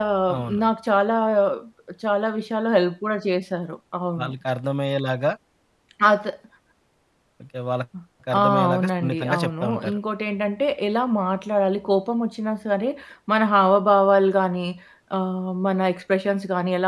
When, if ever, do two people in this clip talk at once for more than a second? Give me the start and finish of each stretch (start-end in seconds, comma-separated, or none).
8.4-10.0